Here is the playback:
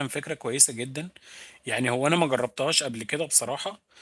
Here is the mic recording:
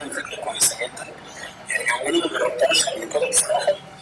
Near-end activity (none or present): none